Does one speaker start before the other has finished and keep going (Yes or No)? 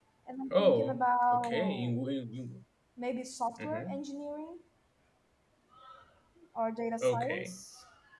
Yes